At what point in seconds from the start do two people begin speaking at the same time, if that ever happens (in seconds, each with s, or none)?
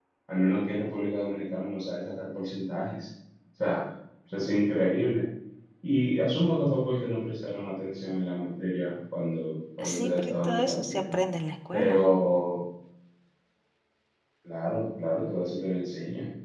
9.8 s